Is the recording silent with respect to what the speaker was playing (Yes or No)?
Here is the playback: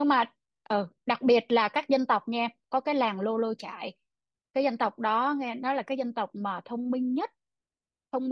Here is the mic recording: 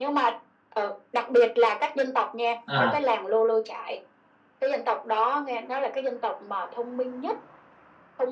No